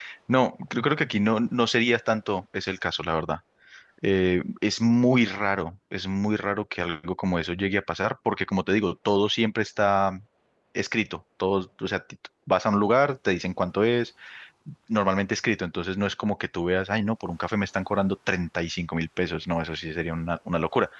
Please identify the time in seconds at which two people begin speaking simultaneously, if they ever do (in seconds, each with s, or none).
none